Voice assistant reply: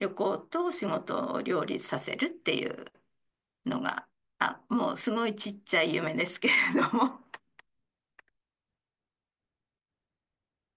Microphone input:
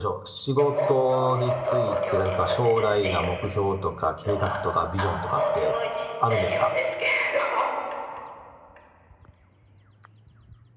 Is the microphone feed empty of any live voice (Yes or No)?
No